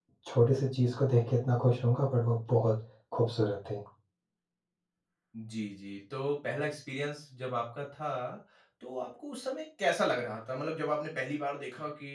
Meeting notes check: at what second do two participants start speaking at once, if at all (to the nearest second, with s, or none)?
none